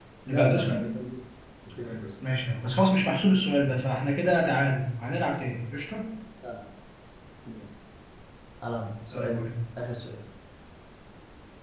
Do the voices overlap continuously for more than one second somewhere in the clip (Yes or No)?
No